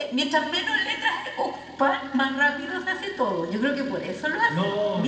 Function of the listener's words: taking over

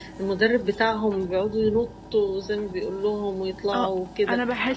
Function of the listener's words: taking over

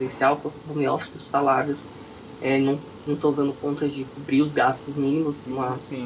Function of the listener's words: listening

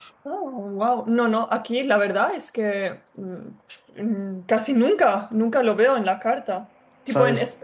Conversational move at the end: listening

